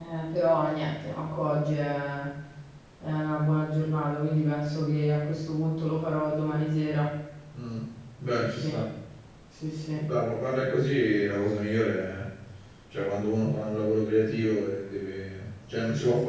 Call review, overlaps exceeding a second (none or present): none